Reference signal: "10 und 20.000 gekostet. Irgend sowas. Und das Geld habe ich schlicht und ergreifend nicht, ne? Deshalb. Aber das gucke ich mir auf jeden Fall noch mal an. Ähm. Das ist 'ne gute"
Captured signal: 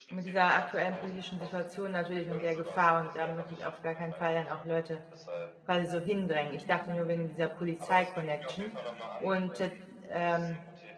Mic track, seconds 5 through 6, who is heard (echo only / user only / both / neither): both